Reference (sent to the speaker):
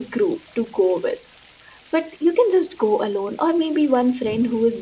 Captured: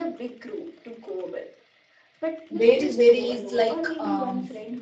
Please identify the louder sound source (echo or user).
user